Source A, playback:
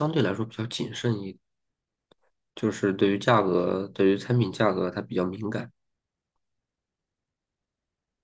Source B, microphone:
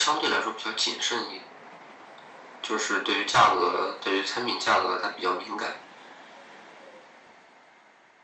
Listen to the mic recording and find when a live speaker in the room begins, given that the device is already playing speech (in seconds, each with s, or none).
none